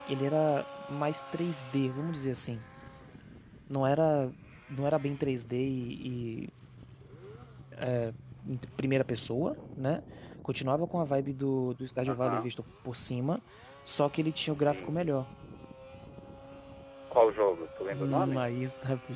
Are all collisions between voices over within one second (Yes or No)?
Yes